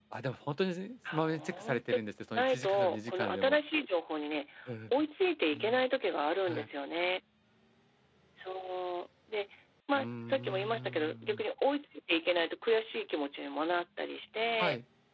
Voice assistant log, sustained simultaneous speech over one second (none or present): present